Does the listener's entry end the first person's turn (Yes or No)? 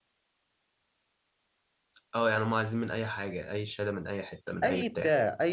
Yes